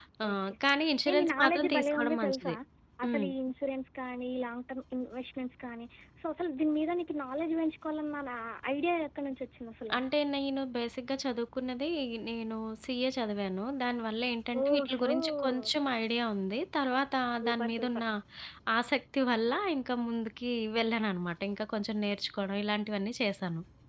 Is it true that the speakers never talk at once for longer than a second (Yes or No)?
No